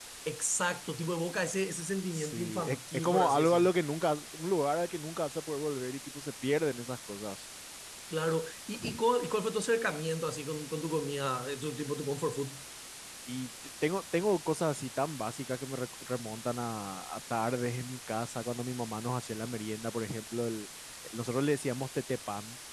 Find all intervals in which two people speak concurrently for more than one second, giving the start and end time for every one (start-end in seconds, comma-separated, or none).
2.1-3.7